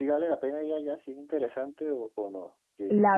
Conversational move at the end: taking over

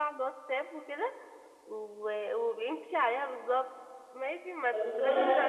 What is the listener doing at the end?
taking over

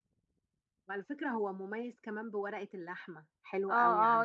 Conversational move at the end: taking over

